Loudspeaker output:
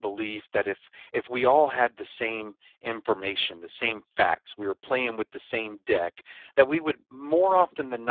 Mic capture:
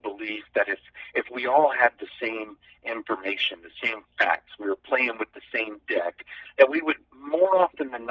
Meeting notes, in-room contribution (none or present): none